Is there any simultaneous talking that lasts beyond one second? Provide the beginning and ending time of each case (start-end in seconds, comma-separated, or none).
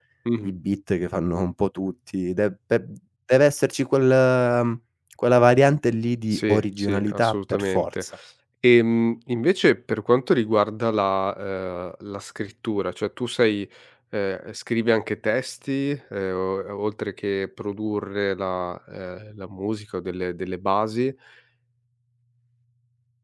6.3-8.0